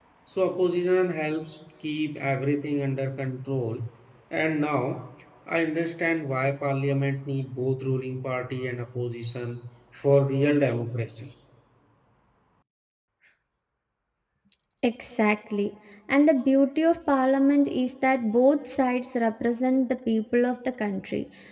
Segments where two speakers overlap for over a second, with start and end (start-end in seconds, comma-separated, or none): none